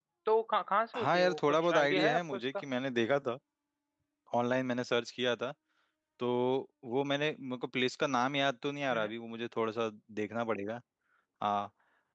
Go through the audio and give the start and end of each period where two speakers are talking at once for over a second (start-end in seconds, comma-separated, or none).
1.0-2.4